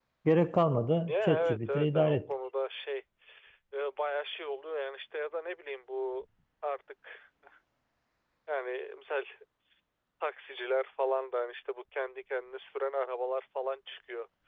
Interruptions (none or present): present